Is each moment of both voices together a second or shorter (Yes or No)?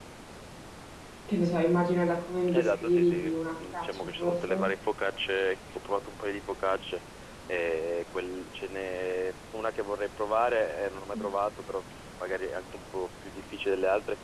No